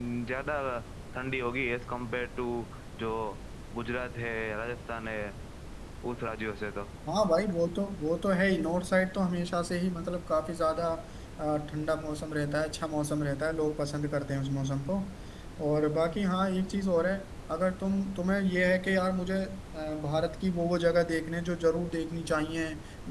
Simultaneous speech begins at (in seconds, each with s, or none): none